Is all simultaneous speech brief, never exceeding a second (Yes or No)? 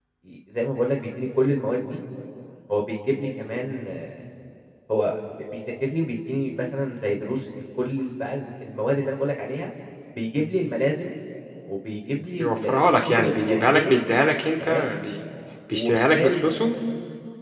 No